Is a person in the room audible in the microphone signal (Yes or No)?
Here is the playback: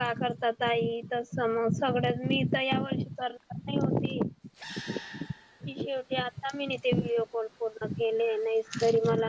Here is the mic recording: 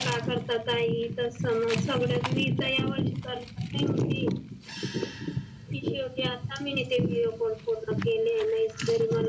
No